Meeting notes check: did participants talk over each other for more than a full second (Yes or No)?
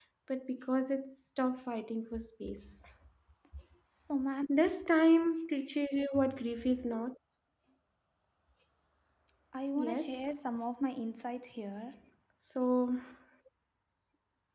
No